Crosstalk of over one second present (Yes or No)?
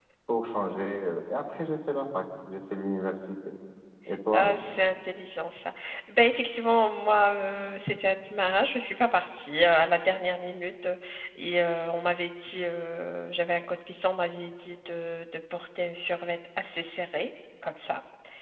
No